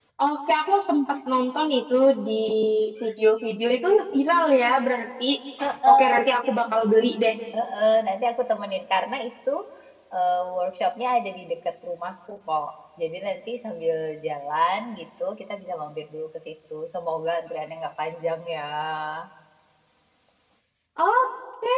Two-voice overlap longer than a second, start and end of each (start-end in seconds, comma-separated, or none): none